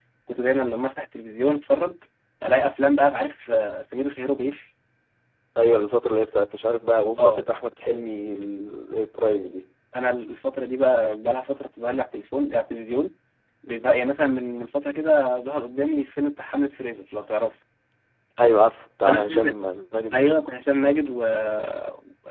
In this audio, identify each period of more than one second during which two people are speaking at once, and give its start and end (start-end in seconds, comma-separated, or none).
none